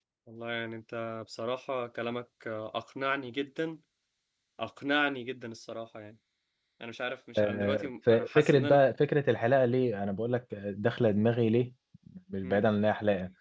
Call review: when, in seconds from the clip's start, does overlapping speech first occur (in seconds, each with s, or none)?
7.4 s